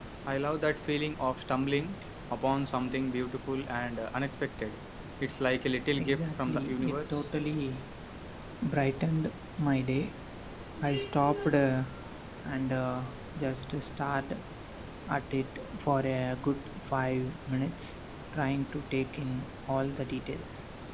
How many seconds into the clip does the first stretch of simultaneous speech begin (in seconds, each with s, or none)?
6.0 s